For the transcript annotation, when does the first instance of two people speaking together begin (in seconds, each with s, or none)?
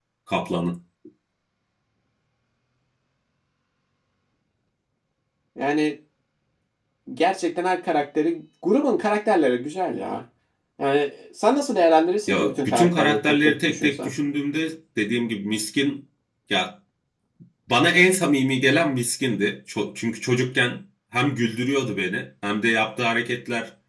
12.3 s